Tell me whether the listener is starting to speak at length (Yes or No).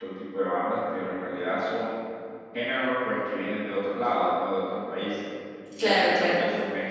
No